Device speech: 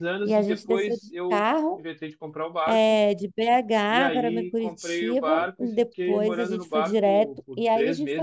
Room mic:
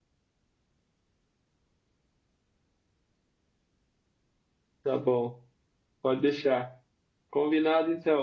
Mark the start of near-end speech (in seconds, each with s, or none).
4.8 s